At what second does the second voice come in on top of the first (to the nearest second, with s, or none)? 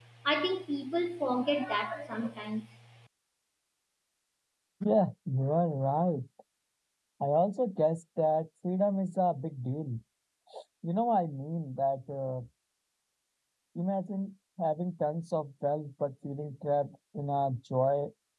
none